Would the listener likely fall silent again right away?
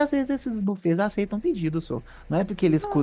Yes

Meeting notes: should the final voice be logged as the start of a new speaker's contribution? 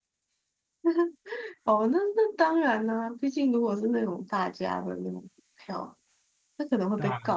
No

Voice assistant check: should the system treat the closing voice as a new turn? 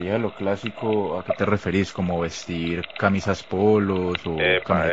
Yes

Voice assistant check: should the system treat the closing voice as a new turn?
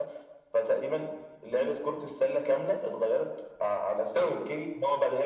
No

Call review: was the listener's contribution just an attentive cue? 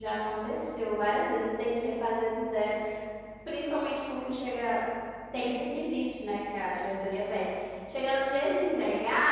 Yes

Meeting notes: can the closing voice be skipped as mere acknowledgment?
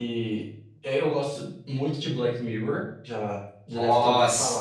No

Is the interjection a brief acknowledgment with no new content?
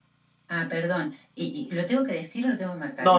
No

